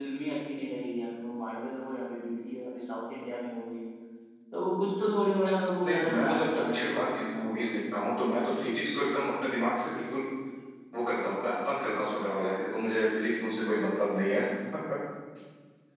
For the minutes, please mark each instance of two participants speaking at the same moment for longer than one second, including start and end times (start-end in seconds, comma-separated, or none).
5.8-7.7